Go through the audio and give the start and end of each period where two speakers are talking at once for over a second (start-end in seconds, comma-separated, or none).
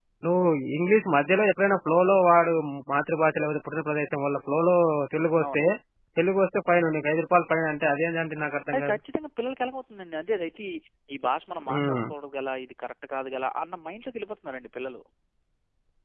none